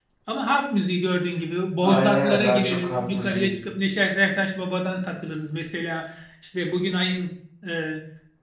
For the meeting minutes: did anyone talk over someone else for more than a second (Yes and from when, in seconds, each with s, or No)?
Yes, from 1.8 s